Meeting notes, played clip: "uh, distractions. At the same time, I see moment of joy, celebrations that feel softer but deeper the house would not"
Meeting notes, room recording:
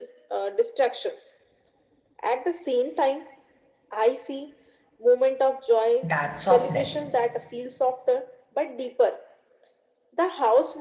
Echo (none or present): present